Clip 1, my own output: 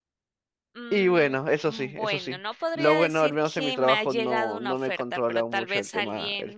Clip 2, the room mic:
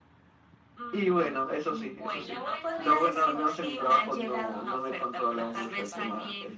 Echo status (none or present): present